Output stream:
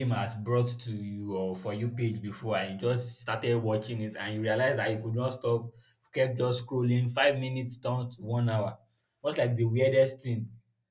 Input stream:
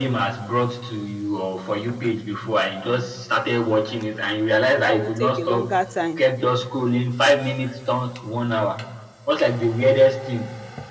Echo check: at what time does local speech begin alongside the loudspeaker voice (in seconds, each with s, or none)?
4.8 s